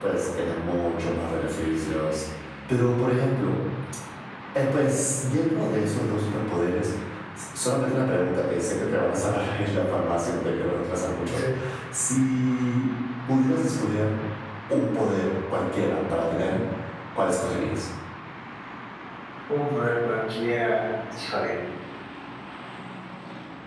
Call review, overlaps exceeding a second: none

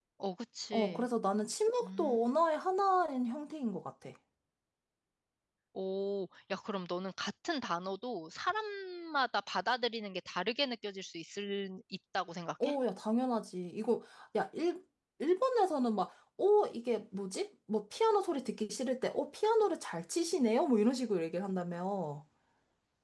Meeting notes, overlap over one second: none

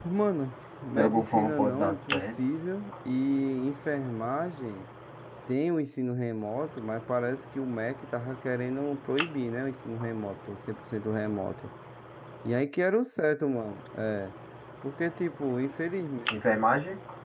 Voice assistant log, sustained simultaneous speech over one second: present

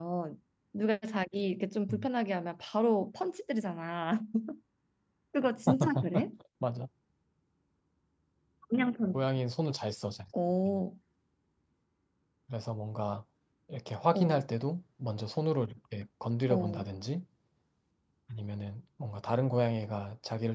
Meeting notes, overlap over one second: none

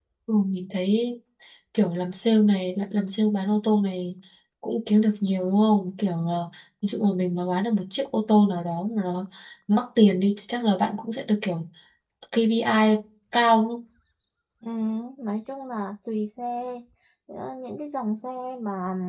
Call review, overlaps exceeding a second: none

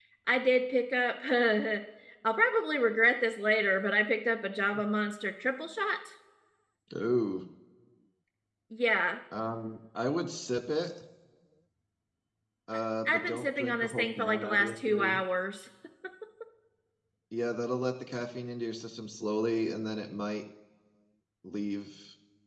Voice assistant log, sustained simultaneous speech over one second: present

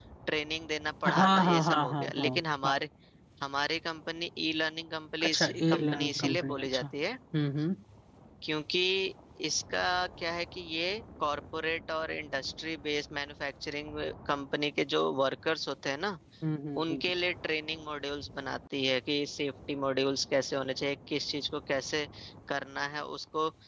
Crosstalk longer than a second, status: present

